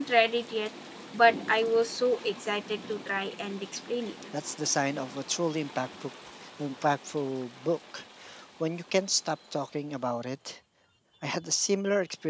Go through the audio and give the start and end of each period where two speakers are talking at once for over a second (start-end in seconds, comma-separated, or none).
none